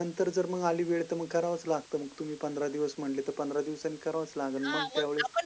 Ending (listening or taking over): taking over